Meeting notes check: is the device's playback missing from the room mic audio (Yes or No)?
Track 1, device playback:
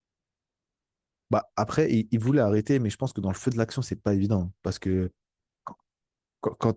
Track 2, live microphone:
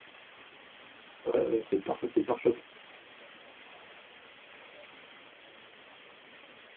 Yes